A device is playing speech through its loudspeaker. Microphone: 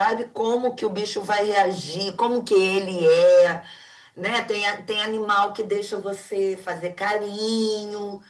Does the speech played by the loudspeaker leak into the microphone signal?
Yes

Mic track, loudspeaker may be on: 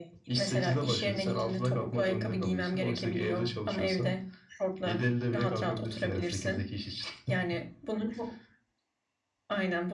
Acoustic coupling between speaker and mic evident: Yes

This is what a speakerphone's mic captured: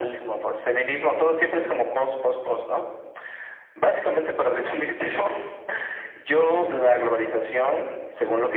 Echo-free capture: No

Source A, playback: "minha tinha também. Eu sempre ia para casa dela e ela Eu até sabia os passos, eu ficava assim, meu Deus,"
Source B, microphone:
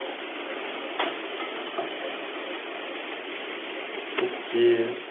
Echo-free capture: Yes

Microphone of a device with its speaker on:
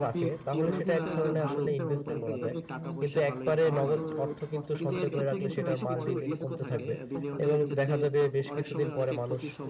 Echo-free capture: No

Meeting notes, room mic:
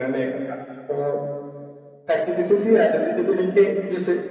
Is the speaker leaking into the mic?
Yes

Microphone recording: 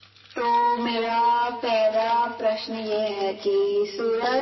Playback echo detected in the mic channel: Yes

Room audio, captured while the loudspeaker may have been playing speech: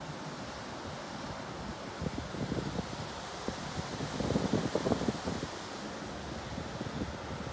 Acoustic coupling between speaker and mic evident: No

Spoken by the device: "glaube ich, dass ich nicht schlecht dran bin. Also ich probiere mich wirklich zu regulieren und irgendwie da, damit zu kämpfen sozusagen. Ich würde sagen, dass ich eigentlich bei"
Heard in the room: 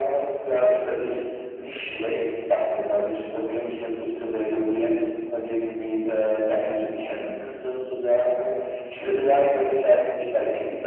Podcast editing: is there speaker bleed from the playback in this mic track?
Yes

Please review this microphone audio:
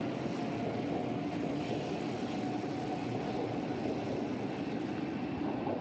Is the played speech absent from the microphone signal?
Yes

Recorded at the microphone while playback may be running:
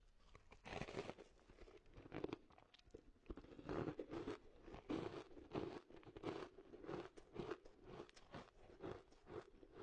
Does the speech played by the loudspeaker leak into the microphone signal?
No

